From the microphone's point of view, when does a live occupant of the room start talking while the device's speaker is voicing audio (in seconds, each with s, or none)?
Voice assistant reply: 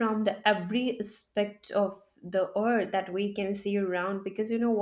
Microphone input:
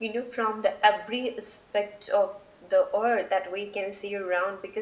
none